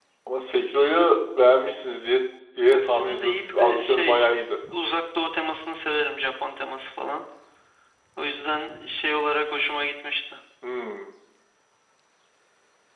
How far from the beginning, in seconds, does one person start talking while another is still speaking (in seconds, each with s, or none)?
2.7 s